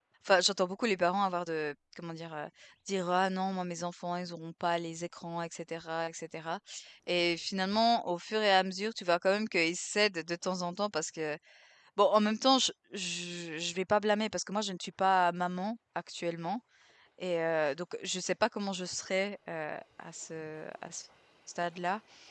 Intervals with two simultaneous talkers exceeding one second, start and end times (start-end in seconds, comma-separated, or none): none